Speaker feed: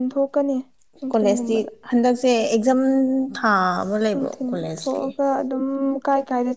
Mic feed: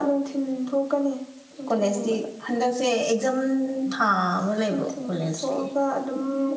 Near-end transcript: none

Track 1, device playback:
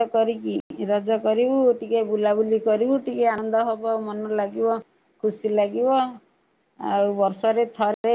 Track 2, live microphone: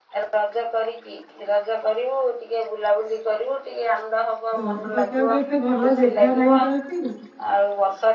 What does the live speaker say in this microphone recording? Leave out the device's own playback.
ଦୋଳି ପକେଇବାକୁ ଏତେ ଭଲ ଯେଗା ନାହିଁ ତ ଏଠି।

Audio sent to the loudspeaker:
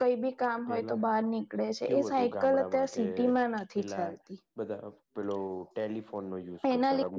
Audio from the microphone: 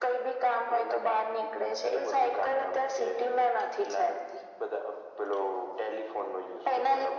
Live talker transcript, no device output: none

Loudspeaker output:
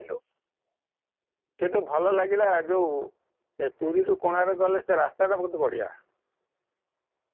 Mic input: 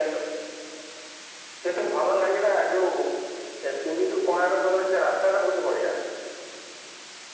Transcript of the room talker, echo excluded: none

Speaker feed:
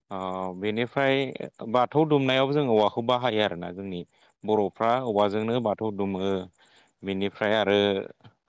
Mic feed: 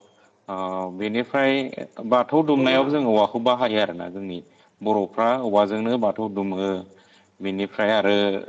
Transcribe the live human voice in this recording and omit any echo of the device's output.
नंगौ नोंथां

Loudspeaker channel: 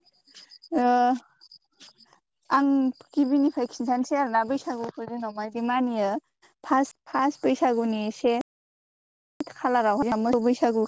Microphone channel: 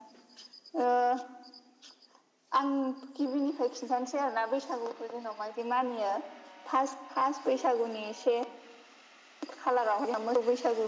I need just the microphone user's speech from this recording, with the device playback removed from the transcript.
none

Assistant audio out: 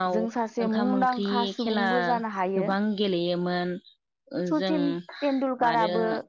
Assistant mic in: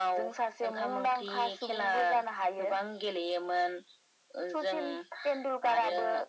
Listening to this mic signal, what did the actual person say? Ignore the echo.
none

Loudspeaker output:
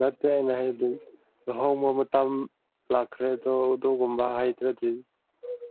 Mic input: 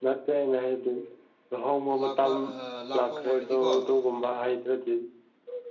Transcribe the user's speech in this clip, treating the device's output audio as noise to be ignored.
ꯂꯥꯛꯄ ꯑꯍ ꯂꯥꯛꯄ ꯑꯣꯏꯔꯗꯤꯀꯣ

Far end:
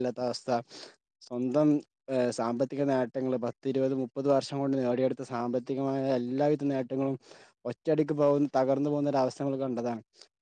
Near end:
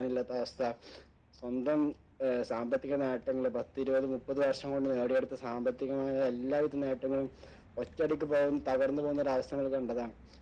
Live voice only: none

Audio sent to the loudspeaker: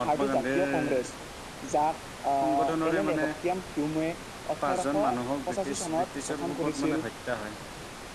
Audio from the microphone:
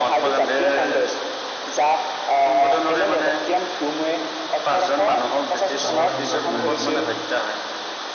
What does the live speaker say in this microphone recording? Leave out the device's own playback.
অসহযোগ আন্দোলন গঢ়ি তুলিছিল হয়

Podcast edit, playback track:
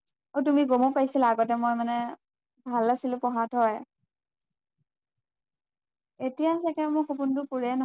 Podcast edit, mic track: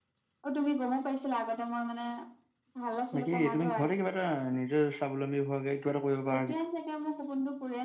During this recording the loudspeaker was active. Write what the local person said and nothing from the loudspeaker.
বাকী তুমি ঘৰতে কিবা এটা নিজে স্বাৱলম্বী হোৱাকে কিবা এটা কৰিব পাৰা কিন্তু।

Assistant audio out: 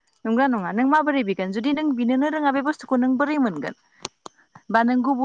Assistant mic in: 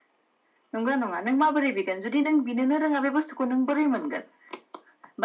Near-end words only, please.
none

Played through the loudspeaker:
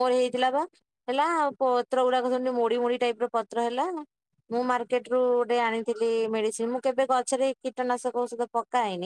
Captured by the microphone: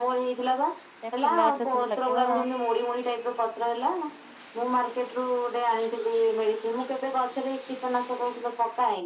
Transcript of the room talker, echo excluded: ଏ ଫୁଲ ଗଛ ସବୁ ଲଗେଇବ।

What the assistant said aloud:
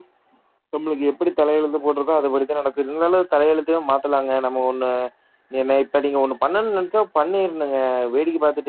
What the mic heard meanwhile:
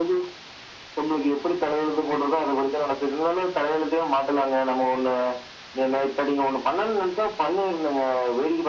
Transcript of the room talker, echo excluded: none

